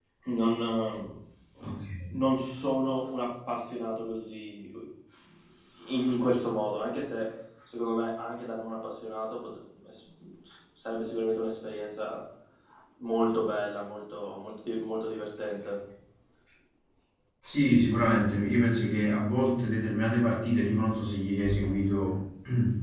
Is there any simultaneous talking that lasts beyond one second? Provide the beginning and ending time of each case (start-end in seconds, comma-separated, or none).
none